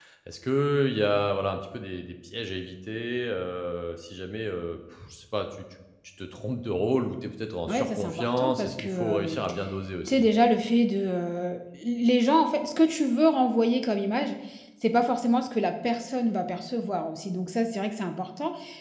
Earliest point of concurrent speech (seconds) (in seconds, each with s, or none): 7.7 s